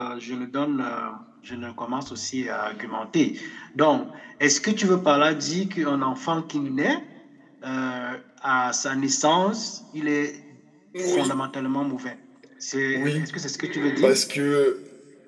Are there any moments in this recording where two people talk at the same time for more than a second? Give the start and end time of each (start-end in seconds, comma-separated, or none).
none